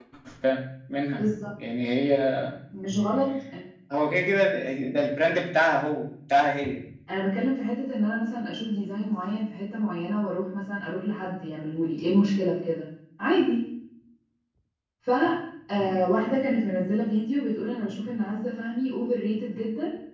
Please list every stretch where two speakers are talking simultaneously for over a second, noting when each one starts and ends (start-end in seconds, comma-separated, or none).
none